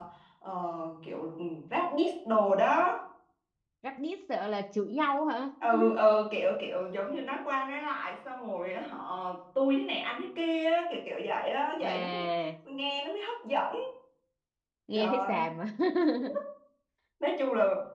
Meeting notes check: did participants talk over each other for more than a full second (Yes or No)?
No